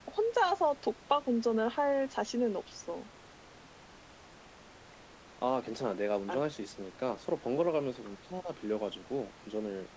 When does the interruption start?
none

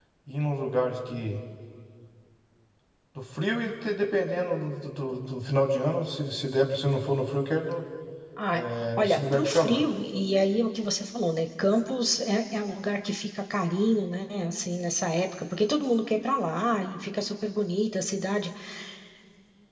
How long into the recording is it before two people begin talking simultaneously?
9 s

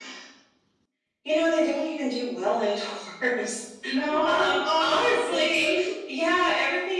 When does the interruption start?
4 s

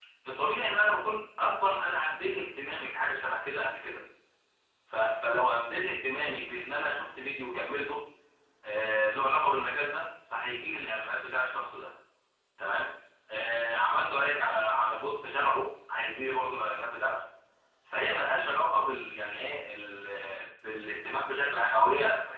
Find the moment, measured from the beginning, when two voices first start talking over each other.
none

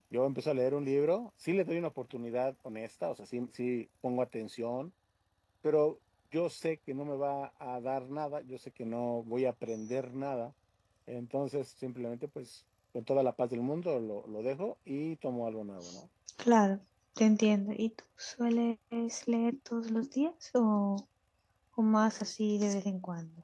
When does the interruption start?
none

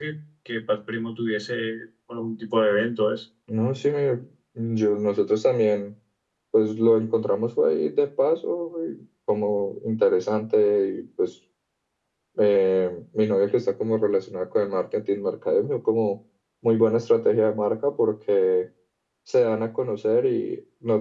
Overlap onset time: none

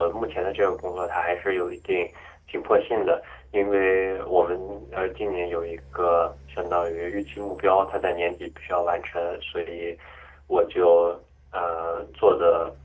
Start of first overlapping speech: none

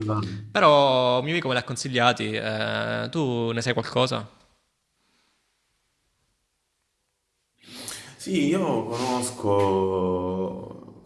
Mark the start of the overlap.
none

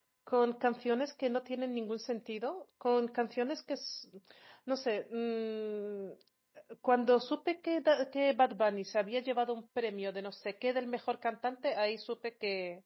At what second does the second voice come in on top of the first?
none

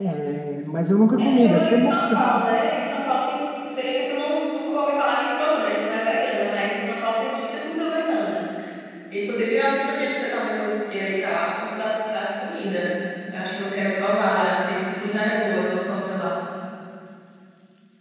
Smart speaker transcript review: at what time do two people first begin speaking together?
1 s

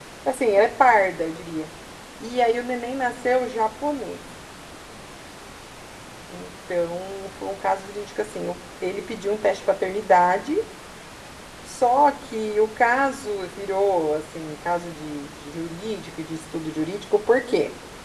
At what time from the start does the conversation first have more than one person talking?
none

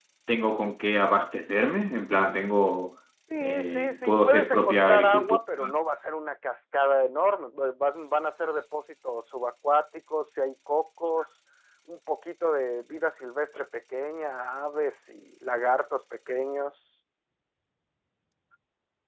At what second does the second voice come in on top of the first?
3 s

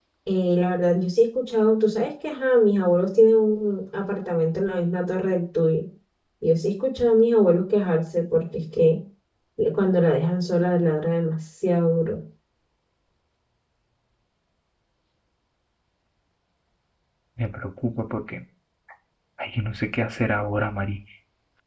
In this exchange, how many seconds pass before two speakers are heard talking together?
none

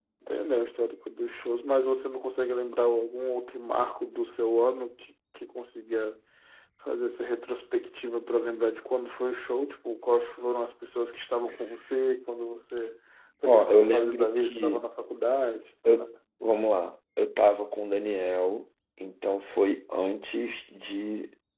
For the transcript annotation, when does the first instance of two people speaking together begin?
13 s

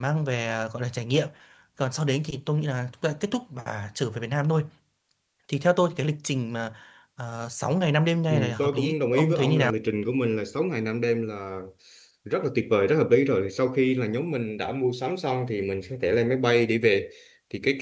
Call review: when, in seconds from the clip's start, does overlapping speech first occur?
8 s

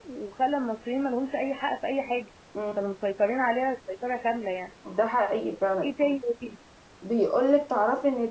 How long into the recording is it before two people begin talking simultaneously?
none

